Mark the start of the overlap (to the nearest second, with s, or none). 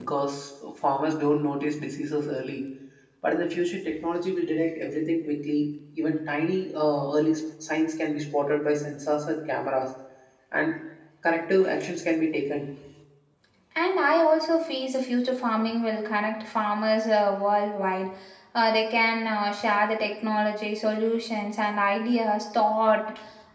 none